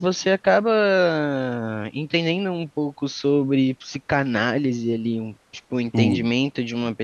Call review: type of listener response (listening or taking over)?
listening